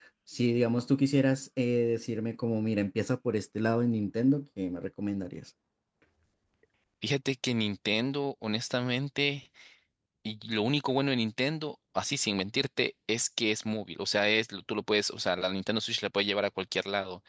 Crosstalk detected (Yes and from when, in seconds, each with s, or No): No